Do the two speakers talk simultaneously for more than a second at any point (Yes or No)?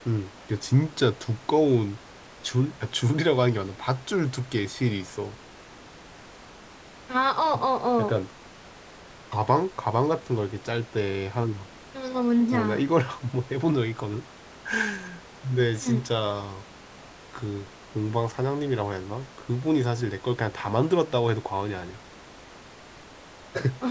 No